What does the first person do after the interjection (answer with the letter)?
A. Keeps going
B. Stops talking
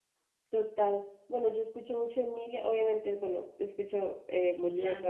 A